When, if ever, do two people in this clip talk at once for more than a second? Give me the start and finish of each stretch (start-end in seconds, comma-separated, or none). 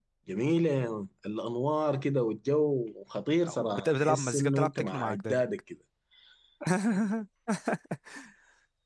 3.6-5.5